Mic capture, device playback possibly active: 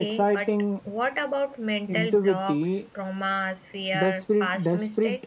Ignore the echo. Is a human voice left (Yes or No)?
Yes